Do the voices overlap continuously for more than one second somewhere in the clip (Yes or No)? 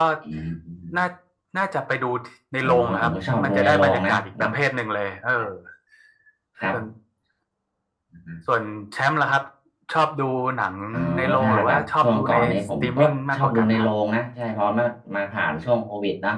Yes